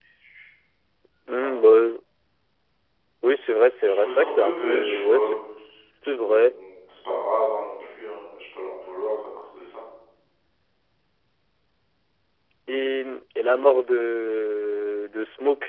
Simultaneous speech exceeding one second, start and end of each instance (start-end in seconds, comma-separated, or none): 3.9-5.3